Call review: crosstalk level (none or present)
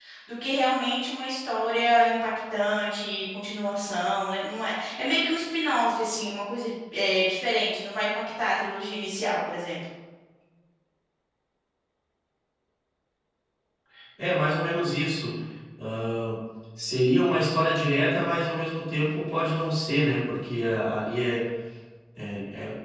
none